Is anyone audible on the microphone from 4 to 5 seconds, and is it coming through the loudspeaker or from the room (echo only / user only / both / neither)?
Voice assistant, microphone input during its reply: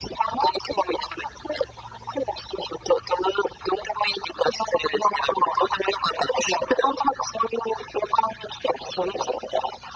echo only